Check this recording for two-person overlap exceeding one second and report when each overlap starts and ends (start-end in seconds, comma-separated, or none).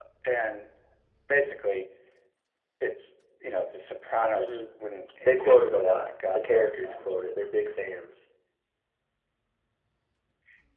5.2-7.2